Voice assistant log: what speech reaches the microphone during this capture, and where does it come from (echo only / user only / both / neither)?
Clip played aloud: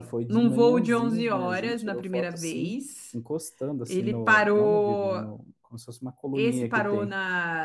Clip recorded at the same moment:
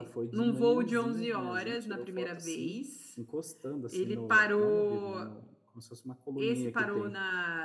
echo only